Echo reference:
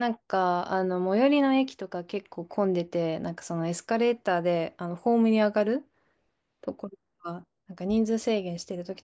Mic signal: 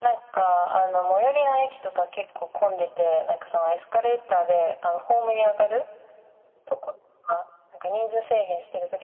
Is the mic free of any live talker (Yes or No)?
Yes